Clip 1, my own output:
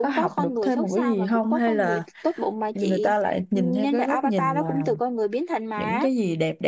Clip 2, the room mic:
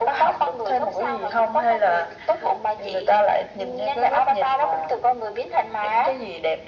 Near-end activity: none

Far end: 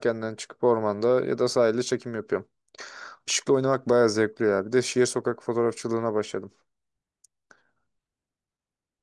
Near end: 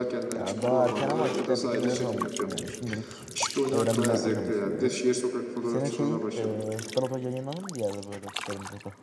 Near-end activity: present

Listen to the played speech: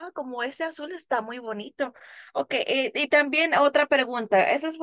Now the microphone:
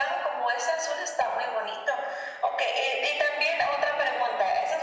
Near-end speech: none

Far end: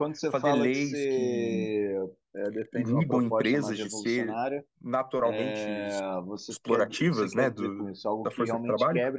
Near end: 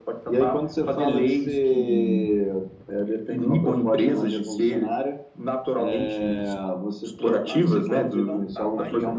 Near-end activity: present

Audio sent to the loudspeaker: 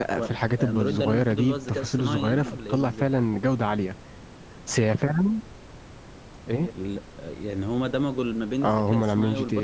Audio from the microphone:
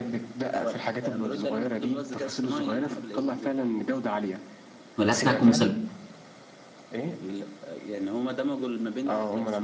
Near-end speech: present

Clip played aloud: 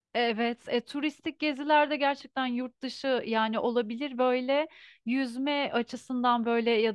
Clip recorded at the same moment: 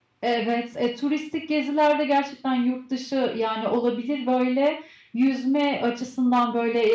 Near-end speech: none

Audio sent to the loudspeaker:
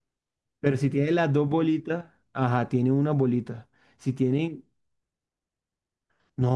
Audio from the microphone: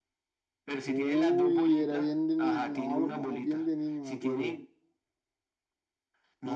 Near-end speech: present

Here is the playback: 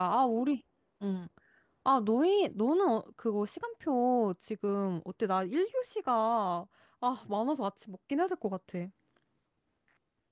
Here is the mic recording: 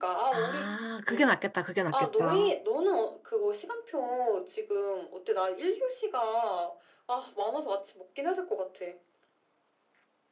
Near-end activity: present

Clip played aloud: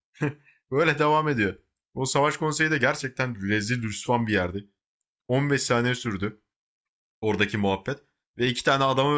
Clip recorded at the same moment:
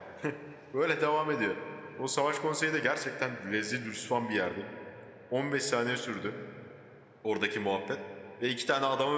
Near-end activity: none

